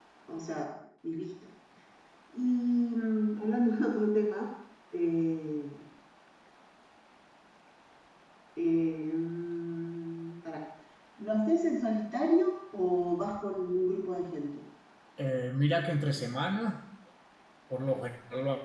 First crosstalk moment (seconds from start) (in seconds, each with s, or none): none